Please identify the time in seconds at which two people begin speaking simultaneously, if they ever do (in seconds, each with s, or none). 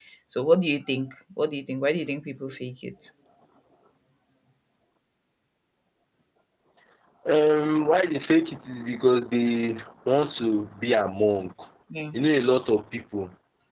none